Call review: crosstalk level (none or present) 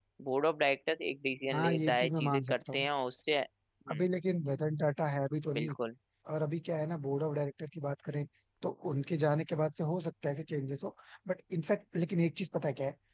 present